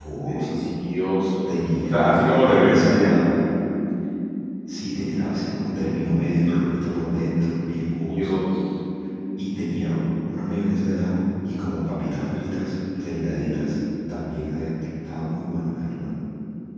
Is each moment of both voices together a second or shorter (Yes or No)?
No